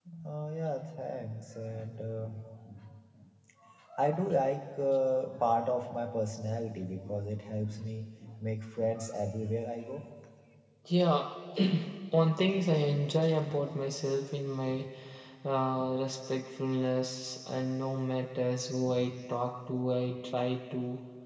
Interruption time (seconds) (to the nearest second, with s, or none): none